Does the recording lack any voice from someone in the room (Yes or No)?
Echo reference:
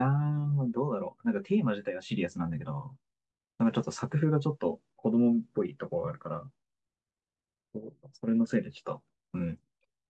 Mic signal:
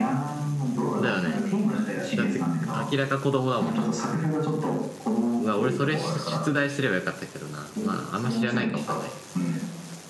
No